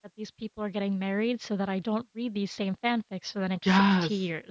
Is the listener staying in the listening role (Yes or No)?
No